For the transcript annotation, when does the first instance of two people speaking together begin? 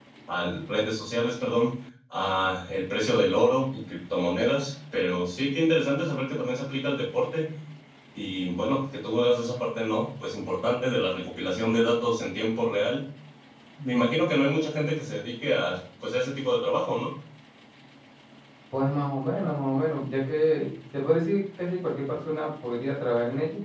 none

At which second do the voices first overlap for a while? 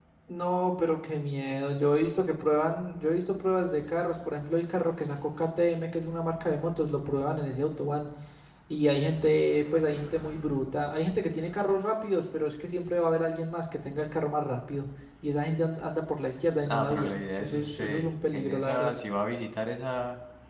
17 s

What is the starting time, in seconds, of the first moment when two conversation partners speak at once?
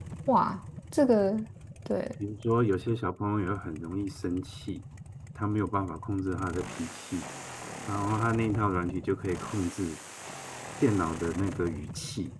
none

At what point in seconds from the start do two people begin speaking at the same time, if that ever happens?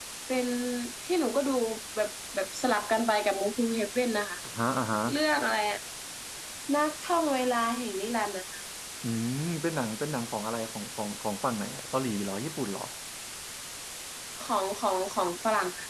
none

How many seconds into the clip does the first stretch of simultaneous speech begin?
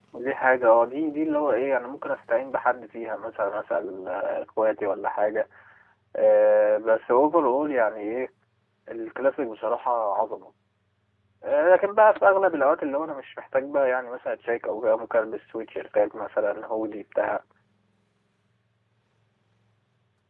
none

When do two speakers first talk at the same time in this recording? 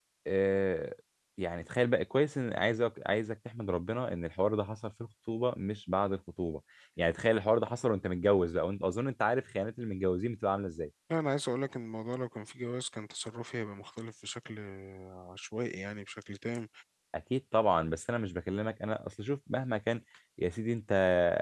none

